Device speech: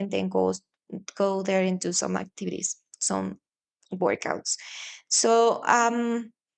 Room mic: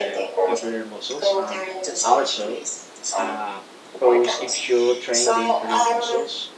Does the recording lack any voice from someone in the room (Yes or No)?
No